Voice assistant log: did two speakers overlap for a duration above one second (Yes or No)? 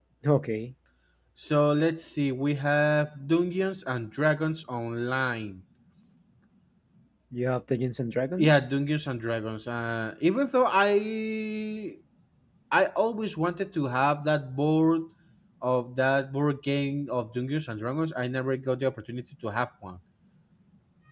No